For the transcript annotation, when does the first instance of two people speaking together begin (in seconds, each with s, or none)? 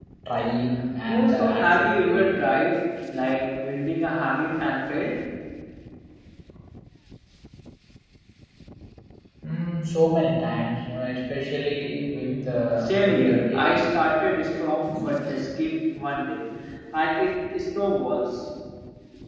1.1 s